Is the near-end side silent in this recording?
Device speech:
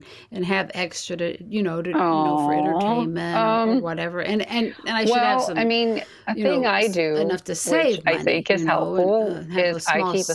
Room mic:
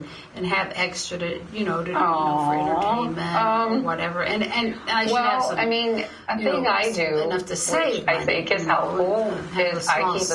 Yes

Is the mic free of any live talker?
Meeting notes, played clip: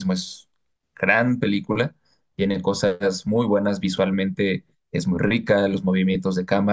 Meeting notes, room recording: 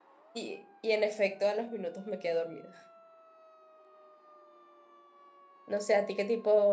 No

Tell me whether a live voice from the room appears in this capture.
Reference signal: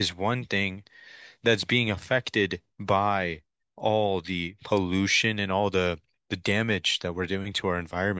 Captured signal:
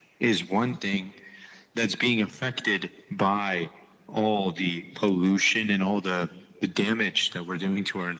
No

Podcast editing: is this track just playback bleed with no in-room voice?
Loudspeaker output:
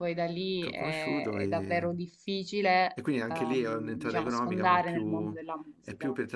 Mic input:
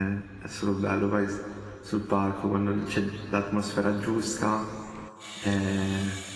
No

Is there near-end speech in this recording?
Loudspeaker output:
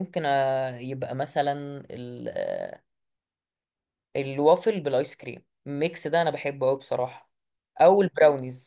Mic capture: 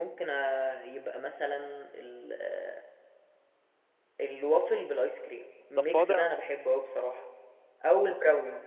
Yes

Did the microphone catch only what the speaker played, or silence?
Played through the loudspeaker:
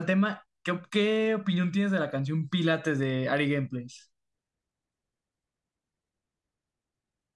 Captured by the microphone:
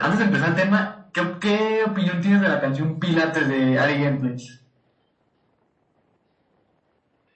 Yes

